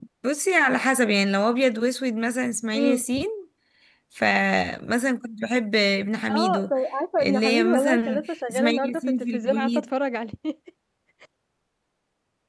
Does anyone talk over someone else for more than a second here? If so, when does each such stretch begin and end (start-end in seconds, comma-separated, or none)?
7.2-9.8